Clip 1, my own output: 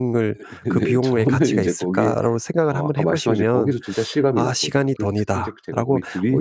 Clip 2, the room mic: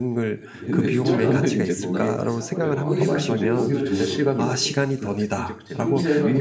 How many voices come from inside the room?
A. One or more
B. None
A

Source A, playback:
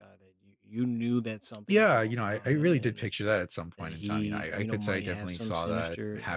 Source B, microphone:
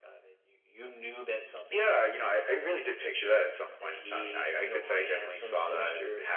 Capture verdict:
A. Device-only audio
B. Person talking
A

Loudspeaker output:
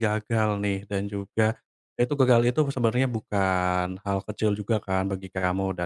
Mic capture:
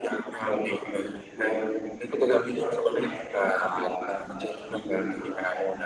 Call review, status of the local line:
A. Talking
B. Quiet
B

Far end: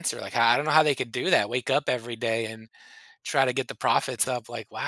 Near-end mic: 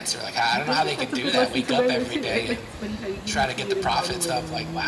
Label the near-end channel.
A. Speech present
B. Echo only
A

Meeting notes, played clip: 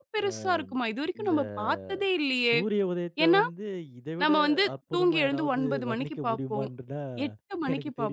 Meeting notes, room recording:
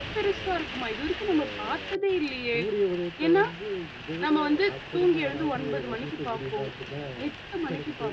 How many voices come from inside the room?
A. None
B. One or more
A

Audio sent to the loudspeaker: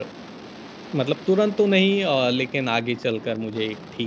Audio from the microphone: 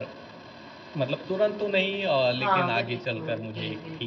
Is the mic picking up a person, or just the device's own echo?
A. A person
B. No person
A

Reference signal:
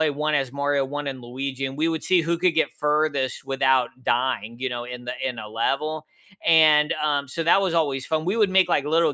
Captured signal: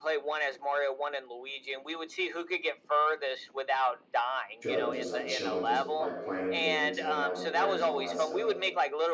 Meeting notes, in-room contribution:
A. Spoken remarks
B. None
A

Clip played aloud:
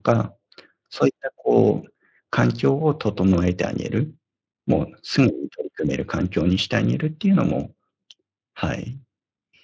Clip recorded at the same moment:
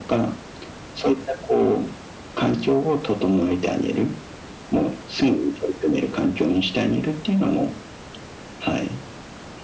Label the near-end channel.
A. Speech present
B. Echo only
B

